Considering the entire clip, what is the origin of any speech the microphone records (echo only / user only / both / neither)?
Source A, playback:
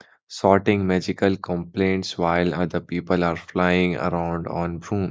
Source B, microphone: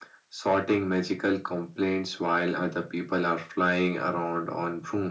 echo only